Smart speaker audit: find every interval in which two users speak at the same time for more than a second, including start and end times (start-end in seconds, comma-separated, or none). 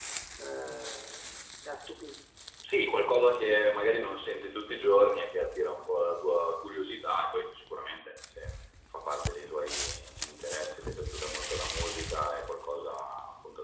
none